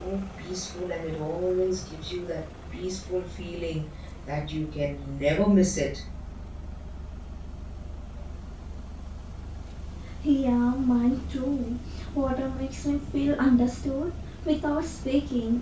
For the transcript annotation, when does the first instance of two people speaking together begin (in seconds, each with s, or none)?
none